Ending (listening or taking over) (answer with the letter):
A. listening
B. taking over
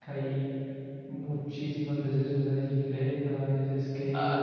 B